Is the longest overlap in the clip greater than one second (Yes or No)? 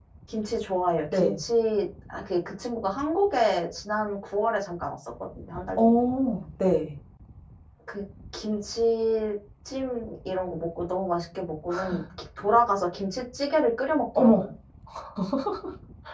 No